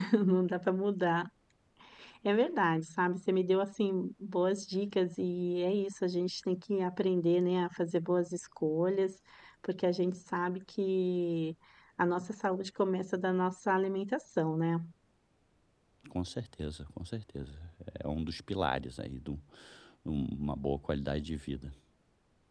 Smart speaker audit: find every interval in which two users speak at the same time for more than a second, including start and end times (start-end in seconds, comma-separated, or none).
none